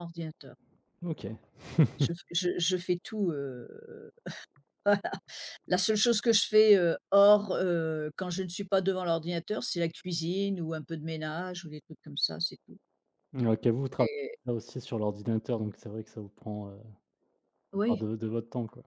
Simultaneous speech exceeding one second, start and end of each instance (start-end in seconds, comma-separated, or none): none